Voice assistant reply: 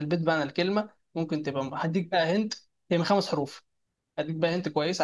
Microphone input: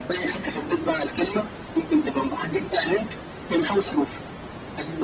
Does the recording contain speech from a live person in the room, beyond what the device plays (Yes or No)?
No